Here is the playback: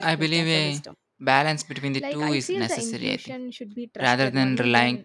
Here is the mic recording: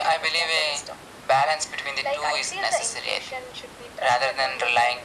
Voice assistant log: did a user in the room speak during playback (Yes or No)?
No